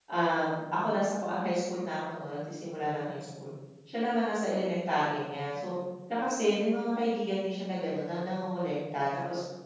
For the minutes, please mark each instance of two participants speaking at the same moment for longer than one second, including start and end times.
none

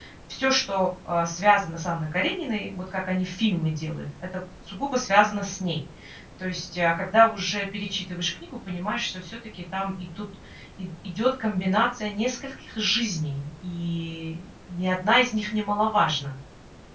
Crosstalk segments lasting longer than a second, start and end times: none

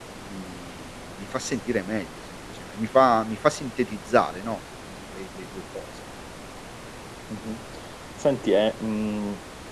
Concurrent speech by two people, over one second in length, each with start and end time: none

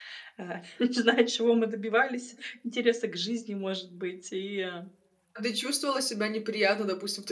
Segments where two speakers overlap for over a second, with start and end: none

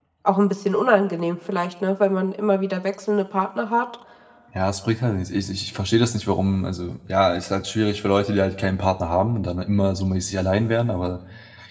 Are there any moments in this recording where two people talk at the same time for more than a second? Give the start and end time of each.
none

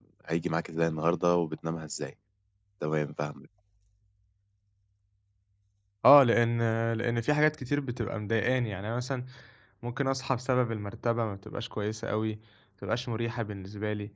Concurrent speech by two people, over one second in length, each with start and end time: none

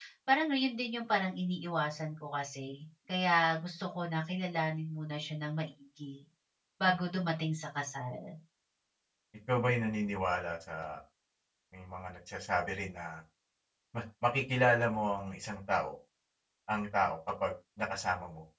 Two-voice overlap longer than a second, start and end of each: none

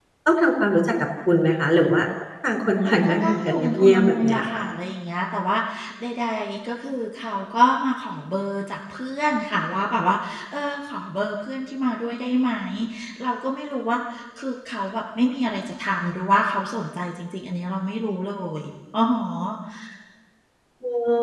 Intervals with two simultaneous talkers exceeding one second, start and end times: 2.8-4.7

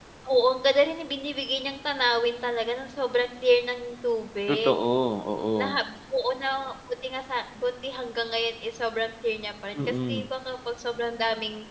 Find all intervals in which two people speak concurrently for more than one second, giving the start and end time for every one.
none

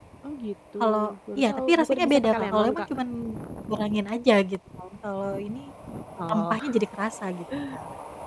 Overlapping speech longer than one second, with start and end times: 1.4-2.8

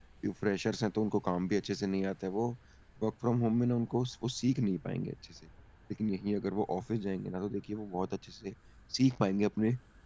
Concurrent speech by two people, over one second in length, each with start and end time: none

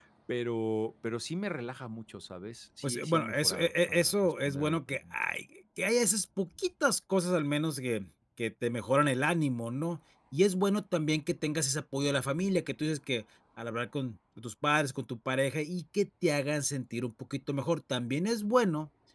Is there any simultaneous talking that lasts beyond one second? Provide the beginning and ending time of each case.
2.8-5.1

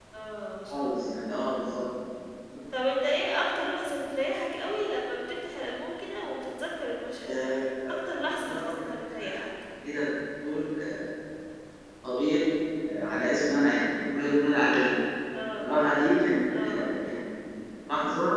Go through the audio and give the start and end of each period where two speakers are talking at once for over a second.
none

